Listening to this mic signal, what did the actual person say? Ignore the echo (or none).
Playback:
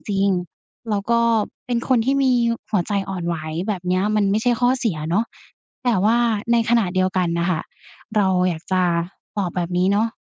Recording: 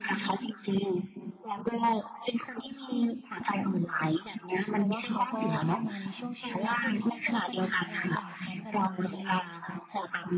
เพราะว่าเขาก็เข้ามาในช่วงชีวิตคุณที่เจอปัญหาหลายอย่างพร้อมกันจริง